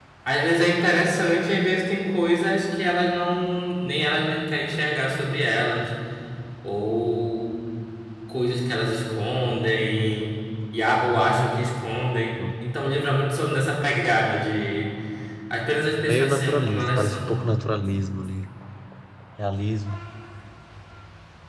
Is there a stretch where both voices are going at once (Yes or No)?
Yes